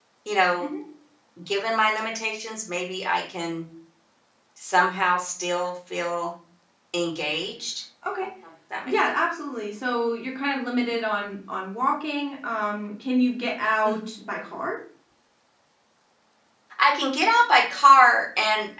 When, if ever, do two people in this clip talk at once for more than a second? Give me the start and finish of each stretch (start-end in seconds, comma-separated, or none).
none